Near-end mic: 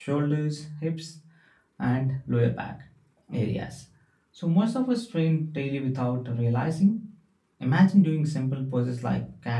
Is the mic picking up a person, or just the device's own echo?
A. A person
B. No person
A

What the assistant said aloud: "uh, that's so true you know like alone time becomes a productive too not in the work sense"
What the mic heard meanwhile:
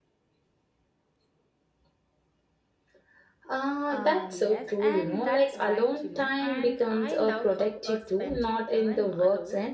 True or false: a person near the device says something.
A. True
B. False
A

